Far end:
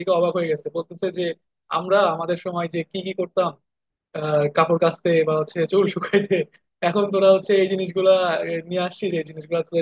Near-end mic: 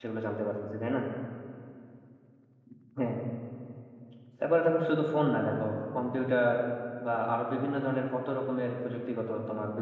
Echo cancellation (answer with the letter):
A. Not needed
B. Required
A